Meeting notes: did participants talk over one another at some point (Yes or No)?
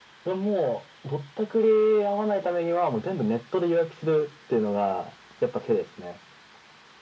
No